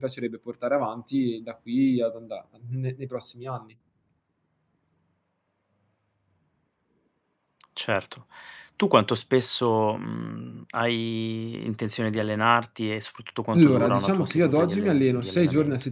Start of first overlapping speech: 13.5 s

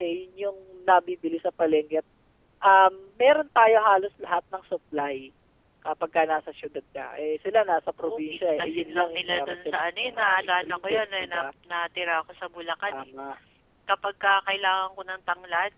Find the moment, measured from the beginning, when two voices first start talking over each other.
8.0 s

